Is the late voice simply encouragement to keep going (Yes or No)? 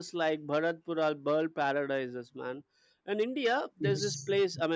Yes